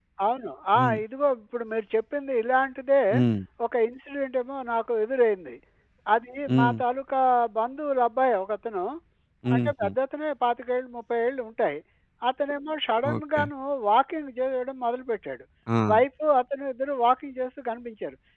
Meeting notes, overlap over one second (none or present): none